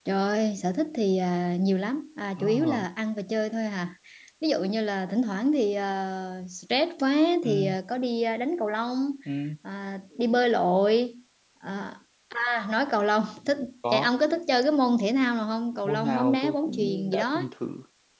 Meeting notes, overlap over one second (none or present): present